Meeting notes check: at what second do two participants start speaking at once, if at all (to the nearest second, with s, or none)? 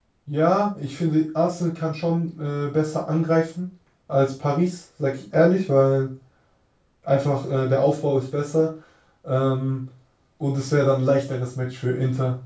none